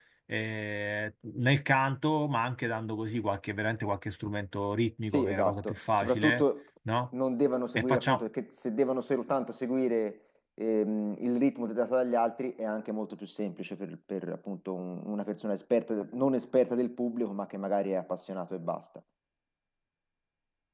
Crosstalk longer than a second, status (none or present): present